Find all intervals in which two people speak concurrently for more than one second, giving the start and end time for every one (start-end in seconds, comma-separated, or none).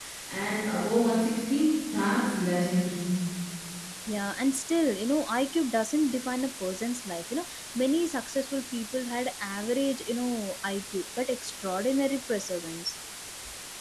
none